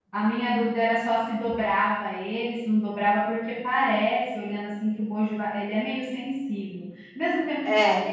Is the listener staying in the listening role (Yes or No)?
Yes